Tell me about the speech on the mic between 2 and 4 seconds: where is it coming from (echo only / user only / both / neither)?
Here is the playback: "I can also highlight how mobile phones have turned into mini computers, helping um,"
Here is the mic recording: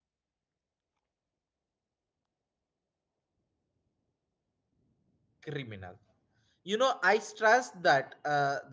neither